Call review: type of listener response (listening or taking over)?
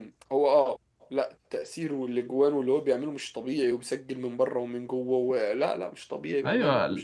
taking over